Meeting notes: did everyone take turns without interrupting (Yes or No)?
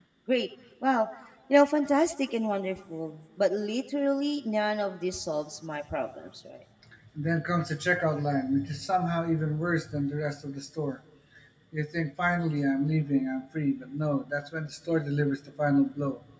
Yes